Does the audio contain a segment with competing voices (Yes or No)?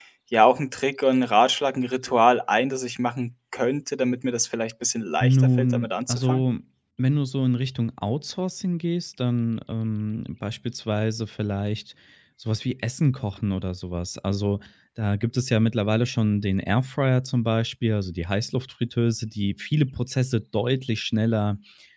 Yes